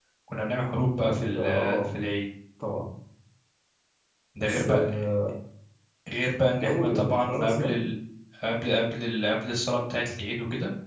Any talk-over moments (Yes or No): Yes